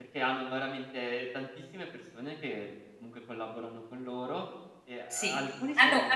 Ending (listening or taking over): taking over